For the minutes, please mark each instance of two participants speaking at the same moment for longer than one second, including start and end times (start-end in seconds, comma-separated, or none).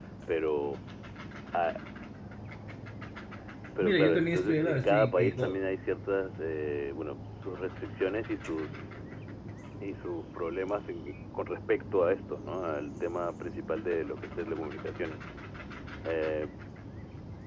3.8-5.6